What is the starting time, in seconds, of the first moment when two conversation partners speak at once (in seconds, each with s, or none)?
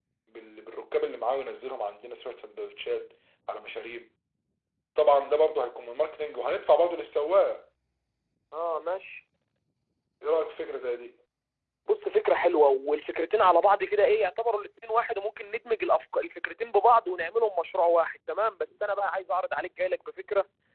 none